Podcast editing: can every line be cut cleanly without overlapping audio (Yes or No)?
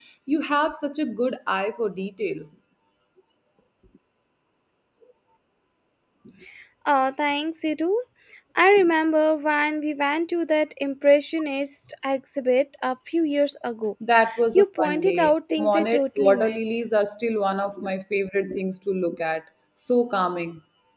No